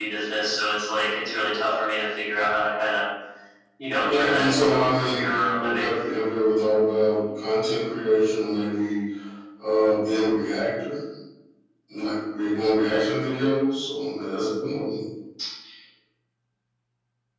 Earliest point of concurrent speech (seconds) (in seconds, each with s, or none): 4.0 s